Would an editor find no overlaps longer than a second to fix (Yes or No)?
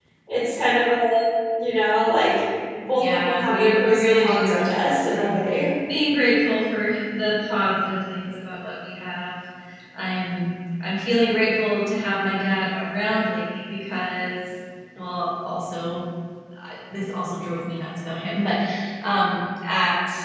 No